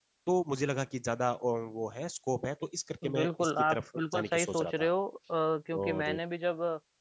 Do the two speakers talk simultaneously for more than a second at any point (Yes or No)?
Yes